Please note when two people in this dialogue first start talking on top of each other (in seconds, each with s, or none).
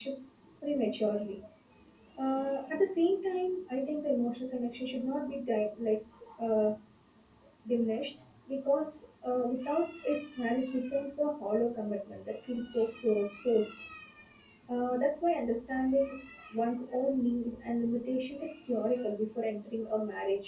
none